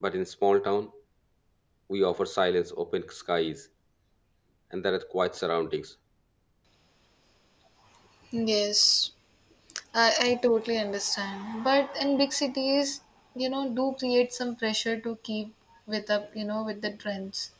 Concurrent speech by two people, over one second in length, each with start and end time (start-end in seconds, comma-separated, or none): none